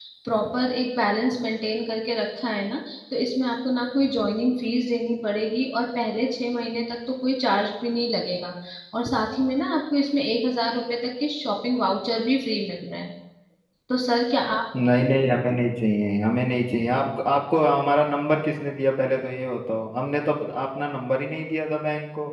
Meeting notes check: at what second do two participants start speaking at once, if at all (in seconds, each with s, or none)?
none